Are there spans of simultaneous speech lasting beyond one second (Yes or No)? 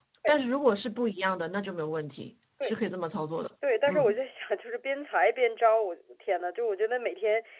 No